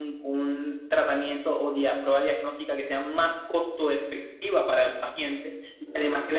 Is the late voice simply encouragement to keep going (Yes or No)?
Yes